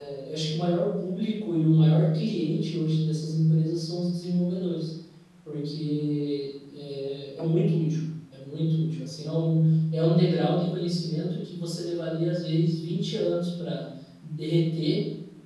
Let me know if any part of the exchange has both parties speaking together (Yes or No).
No